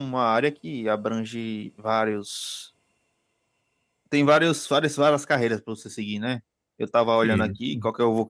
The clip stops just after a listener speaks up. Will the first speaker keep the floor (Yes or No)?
Yes